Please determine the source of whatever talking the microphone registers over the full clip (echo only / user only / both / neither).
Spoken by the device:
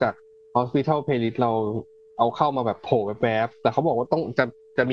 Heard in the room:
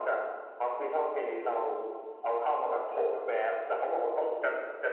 echo only